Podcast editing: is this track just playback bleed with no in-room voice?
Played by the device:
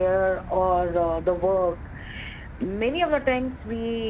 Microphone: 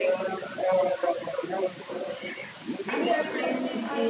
No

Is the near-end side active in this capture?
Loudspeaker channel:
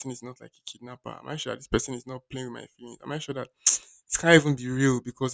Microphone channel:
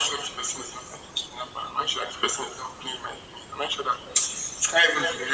No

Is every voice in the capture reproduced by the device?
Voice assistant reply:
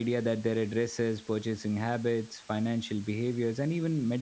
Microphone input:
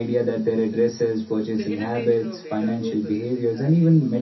No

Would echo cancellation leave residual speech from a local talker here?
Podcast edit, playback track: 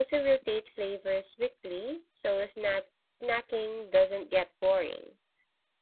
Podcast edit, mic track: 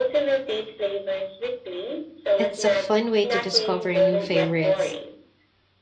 Yes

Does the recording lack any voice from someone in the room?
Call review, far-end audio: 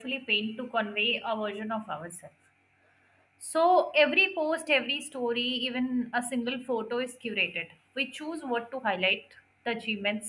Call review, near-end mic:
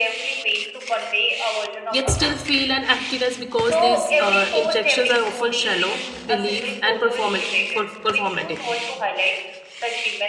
No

